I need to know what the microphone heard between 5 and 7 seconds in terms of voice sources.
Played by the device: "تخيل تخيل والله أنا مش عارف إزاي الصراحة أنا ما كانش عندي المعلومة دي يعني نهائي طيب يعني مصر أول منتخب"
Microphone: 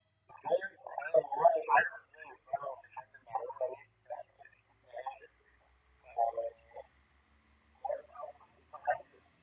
echo only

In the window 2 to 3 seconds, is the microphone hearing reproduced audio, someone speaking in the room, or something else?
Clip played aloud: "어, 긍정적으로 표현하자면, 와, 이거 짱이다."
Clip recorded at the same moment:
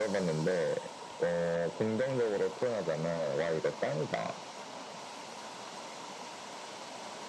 echo only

